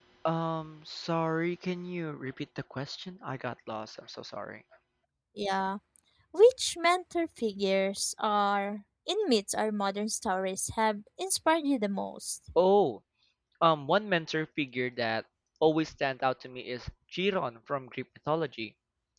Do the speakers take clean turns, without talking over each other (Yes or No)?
Yes